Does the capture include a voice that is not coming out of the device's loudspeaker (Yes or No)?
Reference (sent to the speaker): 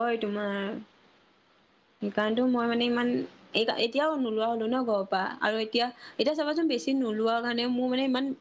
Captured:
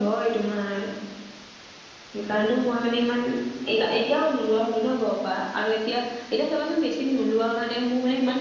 No